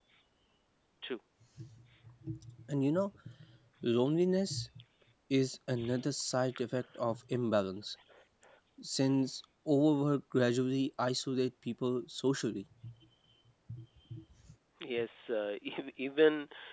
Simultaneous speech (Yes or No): No